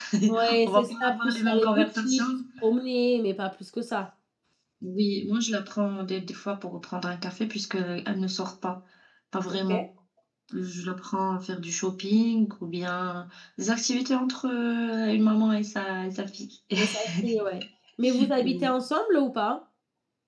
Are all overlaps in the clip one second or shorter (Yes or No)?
No